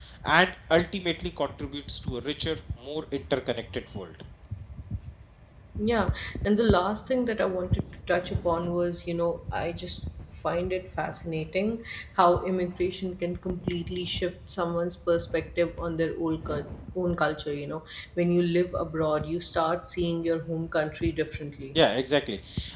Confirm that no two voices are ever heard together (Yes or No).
Yes